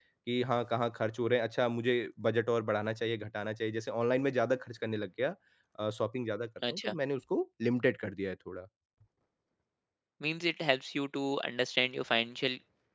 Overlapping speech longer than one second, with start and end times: none

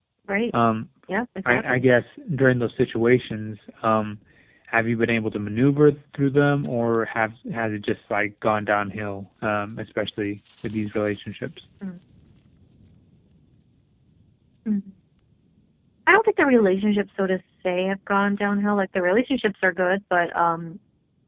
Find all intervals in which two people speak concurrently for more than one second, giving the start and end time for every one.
none

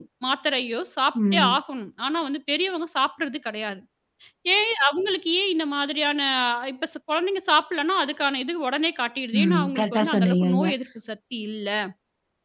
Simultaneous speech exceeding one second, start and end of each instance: 9.4-10.7

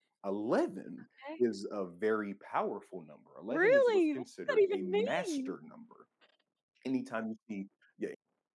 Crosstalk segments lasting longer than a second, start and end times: 3.5-5.5

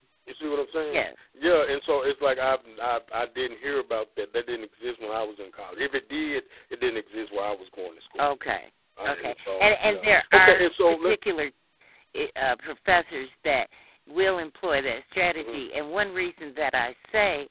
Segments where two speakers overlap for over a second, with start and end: 9.1-11.1

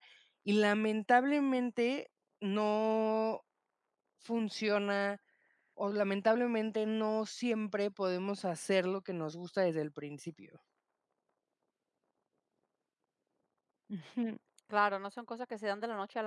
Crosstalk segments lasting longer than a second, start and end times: none

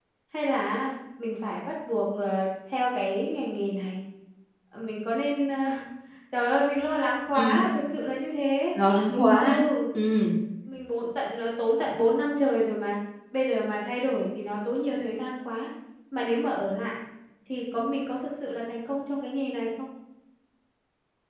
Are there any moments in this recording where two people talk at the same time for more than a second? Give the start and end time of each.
none

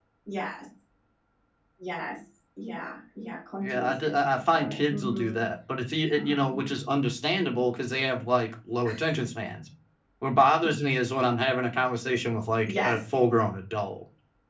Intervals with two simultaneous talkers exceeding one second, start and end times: 3.6-5.4

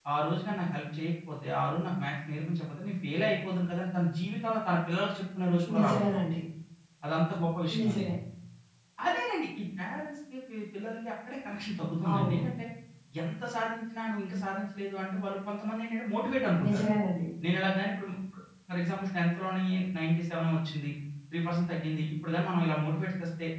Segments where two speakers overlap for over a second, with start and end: none

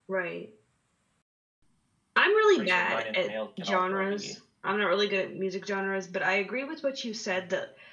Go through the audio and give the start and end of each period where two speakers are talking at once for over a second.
2.6-4.3

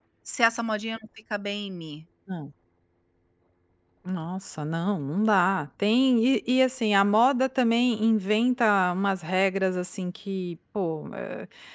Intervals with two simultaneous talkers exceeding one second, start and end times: none

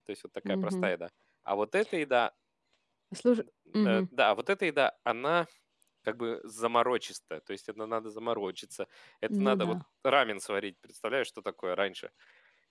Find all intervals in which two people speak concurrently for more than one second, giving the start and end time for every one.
none

